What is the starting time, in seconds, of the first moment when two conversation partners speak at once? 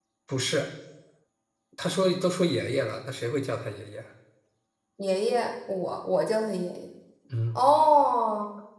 none

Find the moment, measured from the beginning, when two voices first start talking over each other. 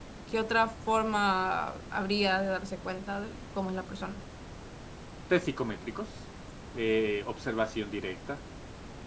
none

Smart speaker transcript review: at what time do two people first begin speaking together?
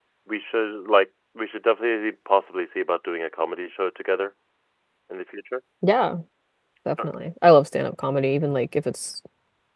none

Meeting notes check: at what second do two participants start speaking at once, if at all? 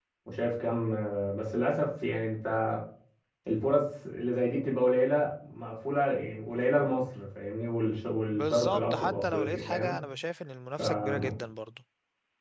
8.3 s

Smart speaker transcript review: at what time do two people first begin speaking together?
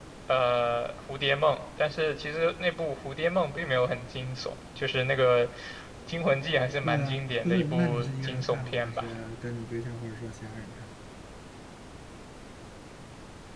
6.8 s

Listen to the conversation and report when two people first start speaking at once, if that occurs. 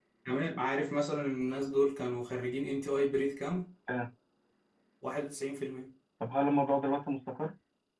none

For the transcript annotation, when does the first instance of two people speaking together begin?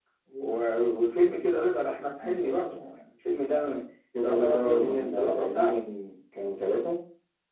4.2 s

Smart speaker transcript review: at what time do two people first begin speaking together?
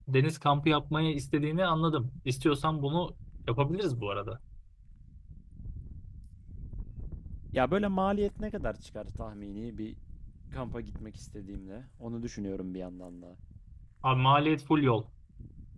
none

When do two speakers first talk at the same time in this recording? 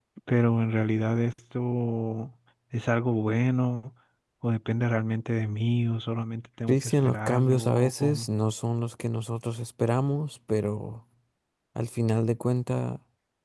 6.7 s

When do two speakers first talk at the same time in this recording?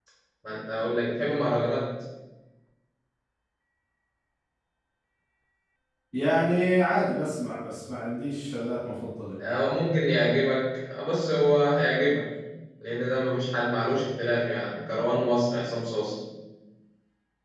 none

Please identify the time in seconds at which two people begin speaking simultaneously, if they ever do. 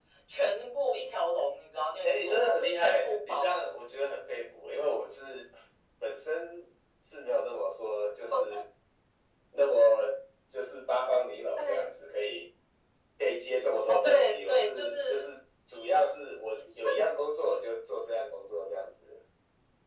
2.0 s

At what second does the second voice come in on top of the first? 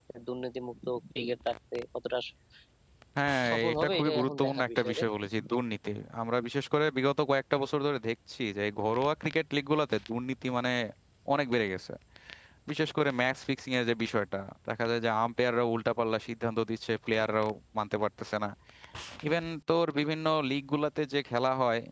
3.5 s

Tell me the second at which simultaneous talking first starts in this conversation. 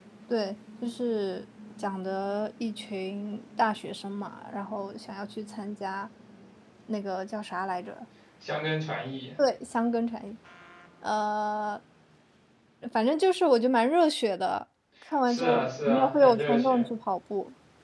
15.2 s

